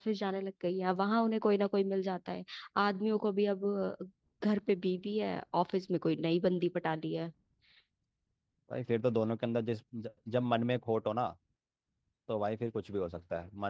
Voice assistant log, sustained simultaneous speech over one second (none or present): none